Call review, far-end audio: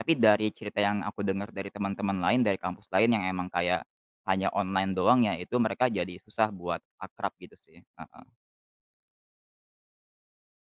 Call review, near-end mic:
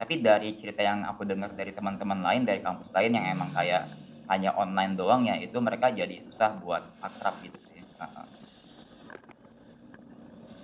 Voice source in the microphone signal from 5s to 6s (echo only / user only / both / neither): echo only